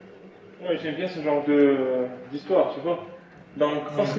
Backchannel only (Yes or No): Yes